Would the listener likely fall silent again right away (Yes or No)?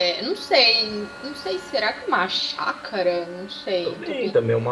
No